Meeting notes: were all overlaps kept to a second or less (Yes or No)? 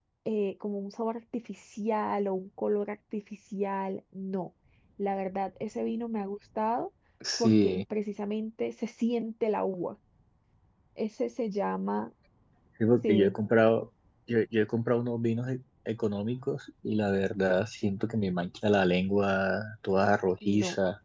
Yes